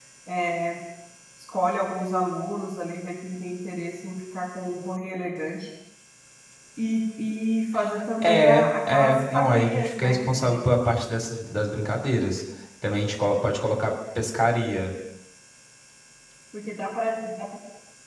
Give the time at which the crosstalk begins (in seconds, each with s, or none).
8.2 s